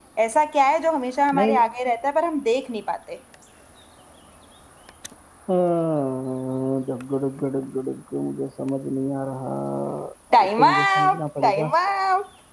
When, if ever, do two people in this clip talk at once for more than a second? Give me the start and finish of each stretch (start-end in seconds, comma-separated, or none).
10.4-11.7